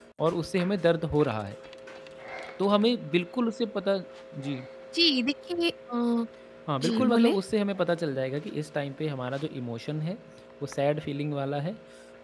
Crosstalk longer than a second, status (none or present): none